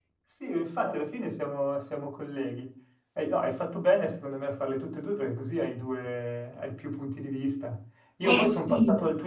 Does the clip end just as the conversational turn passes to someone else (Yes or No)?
No